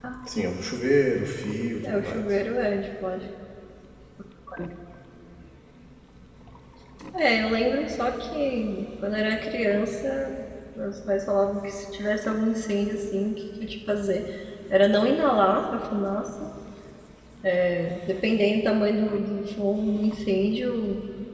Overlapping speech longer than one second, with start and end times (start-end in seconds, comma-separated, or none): none